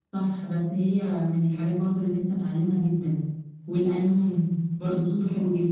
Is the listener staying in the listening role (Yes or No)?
No